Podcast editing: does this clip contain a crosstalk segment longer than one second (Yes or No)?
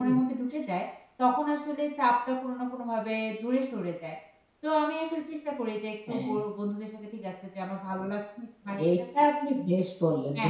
No